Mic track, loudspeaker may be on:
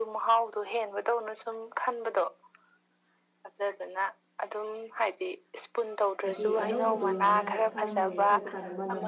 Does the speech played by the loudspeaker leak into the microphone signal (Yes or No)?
Yes